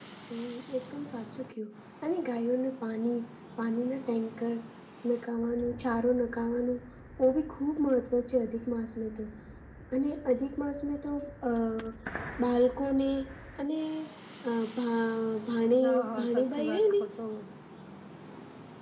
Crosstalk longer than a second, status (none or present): present